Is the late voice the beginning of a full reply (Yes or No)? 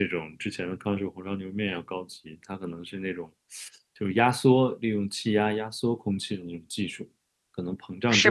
No